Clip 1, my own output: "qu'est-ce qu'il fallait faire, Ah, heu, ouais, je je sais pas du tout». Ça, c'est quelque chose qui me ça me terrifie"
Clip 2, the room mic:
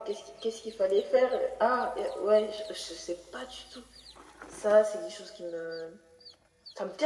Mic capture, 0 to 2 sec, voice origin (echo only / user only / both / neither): echo only